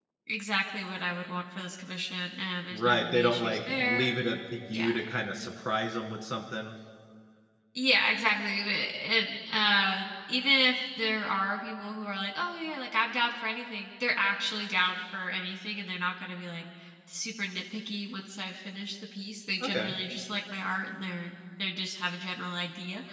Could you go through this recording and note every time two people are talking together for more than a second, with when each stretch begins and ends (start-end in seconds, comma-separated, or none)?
2.7-4.1